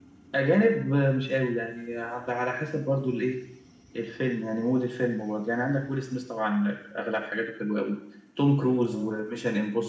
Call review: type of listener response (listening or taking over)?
listening